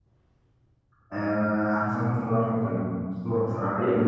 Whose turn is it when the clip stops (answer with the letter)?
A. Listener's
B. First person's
A